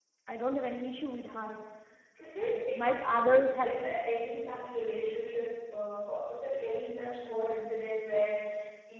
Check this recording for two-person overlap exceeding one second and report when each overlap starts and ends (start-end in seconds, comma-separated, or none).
none